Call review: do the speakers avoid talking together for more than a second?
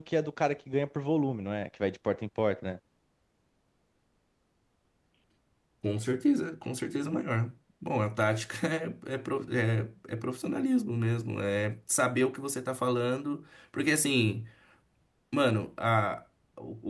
Yes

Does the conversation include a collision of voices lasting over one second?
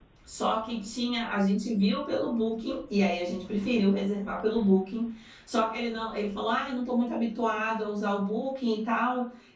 No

